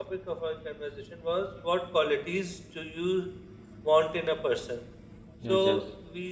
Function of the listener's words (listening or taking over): listening